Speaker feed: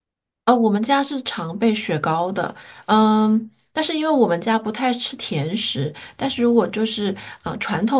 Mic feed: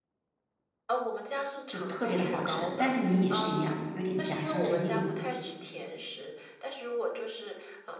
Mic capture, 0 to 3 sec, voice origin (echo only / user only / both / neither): both